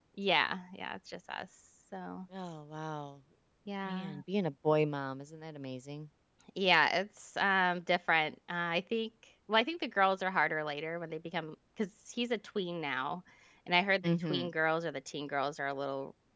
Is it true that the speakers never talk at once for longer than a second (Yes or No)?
Yes